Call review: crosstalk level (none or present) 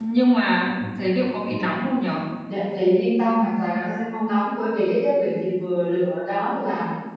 none